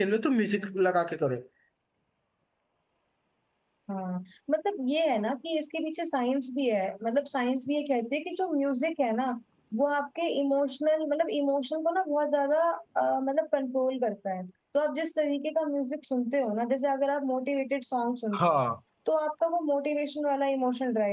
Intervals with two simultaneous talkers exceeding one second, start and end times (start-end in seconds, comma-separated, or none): none